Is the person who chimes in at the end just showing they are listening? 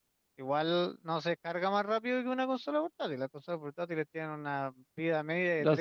No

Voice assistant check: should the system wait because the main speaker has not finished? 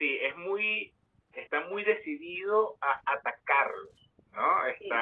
No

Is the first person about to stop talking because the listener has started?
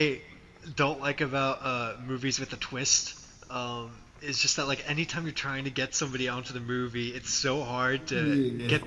No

